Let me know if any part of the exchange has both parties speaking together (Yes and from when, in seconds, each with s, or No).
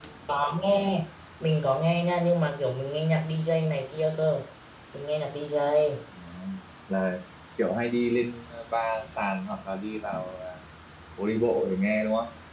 No